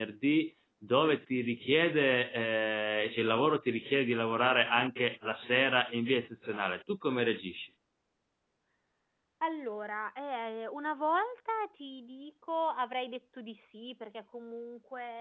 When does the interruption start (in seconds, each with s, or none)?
none